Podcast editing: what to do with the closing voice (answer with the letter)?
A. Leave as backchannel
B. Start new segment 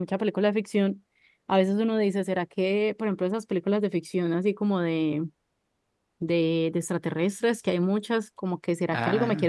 A